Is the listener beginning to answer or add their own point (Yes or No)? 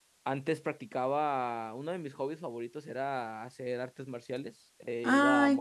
Yes